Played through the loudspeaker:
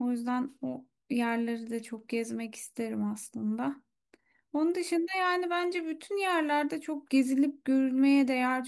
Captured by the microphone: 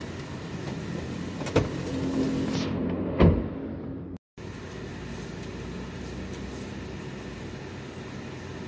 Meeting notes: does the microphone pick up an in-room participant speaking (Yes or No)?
No